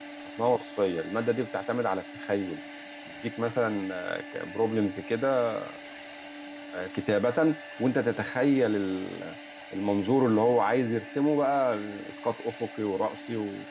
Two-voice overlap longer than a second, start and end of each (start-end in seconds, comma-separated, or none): none